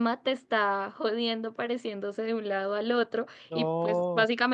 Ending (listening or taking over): listening